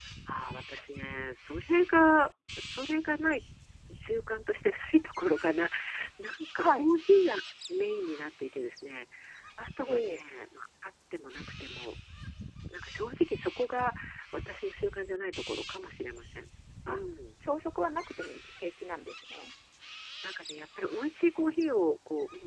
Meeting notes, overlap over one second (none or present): none